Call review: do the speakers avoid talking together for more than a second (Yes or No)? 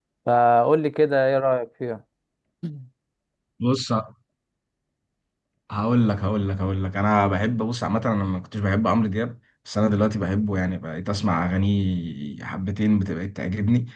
Yes